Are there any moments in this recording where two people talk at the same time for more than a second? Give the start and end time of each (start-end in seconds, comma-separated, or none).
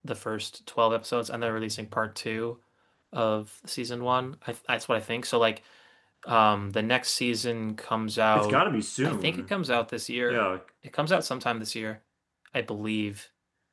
none